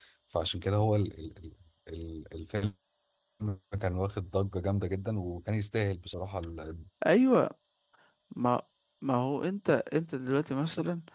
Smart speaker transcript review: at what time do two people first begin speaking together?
none

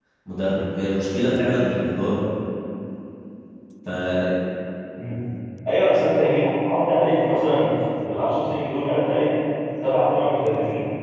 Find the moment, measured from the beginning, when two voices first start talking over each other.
none

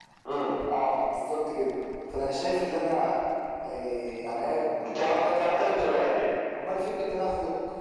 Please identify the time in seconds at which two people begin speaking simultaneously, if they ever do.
4.9 s

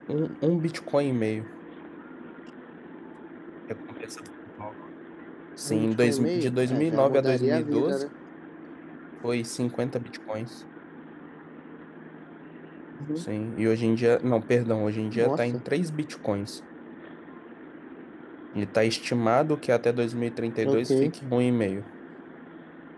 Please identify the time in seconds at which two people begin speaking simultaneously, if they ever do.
5.7 s

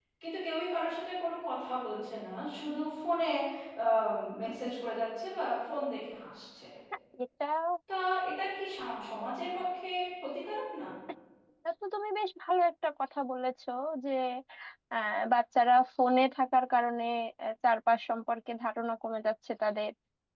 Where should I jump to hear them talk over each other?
none

